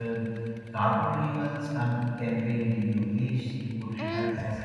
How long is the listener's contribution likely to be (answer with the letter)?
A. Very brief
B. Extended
B